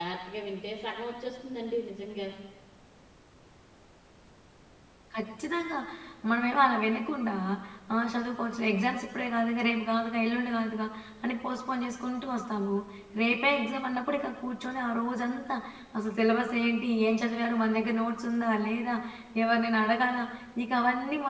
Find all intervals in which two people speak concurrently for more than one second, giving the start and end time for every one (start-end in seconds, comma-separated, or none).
none